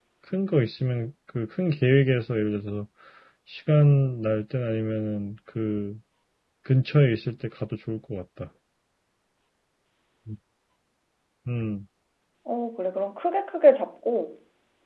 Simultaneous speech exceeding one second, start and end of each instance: none

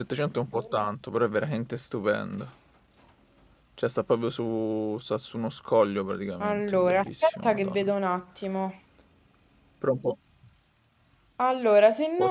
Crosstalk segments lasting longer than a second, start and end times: 6.4-7.9

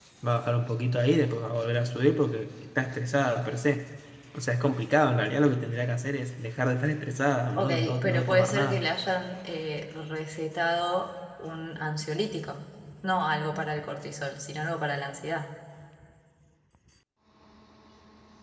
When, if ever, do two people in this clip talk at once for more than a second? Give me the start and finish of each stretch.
7.6-8.9

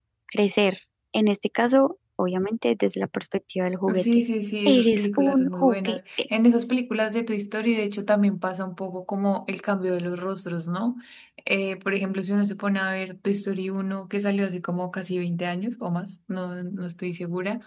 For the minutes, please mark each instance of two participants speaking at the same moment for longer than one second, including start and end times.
4.7-6.2

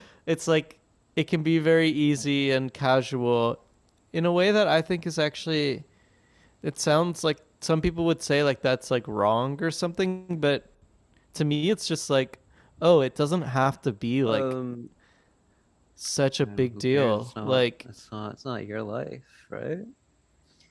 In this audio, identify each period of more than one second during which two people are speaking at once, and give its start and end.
16.4-17.6

